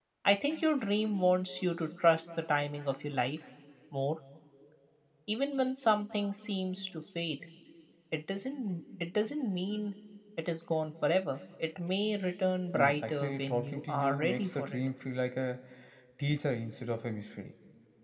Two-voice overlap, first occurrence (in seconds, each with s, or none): 12.7 s